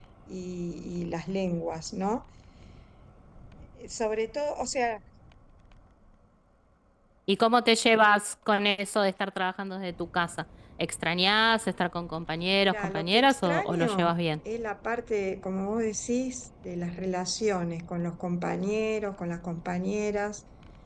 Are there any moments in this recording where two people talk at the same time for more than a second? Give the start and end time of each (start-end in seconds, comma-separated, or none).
12.6-14.2